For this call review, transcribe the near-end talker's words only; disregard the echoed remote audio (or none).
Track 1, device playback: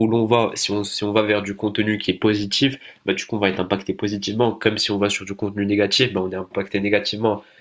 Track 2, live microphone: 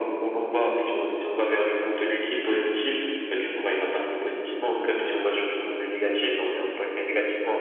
none